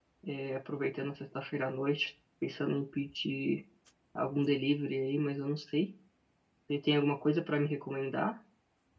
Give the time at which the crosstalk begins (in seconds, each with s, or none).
none